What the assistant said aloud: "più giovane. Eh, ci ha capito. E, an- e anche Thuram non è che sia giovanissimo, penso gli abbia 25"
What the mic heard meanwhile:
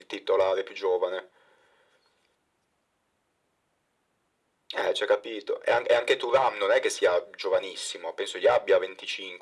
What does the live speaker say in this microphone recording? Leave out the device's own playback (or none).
none